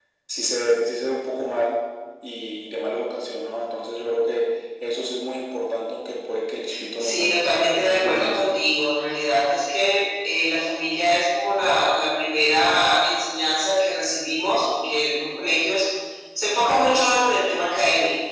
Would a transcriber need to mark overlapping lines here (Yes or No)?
Yes